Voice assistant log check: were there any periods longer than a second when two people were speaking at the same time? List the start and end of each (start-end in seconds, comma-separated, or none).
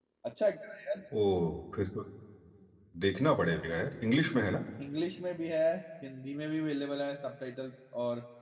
none